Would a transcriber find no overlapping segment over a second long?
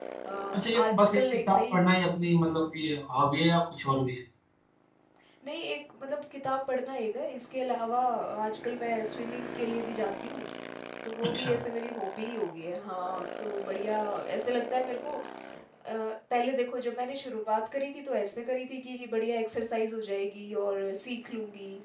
No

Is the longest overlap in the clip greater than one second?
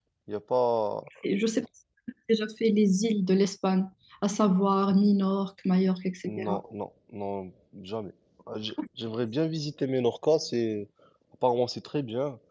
No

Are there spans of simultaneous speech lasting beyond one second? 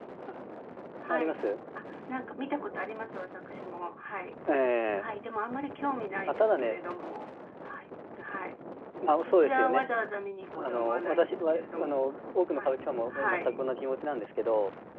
Yes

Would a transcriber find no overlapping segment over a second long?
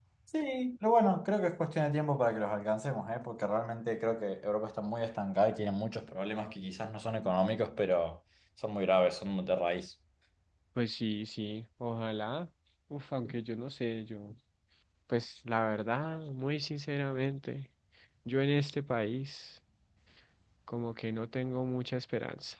Yes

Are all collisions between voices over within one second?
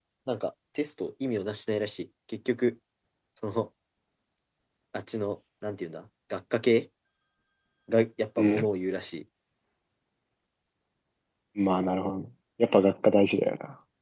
Yes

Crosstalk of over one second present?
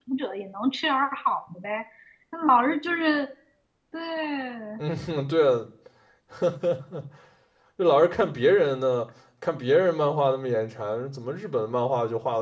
No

